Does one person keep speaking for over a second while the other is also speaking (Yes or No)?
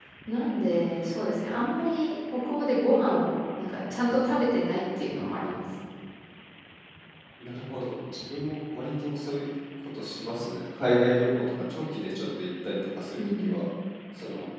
No